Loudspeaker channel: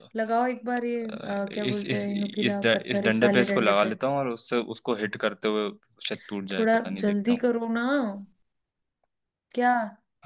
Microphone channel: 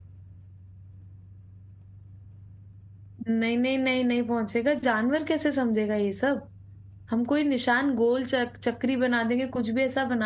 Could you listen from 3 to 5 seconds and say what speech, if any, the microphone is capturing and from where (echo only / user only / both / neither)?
user only